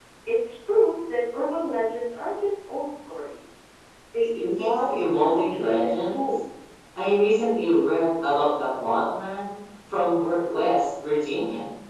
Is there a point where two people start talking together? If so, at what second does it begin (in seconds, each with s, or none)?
4.4 s